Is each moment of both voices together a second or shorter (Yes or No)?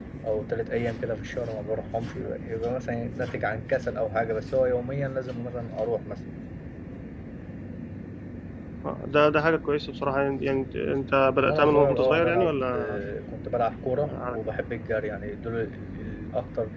No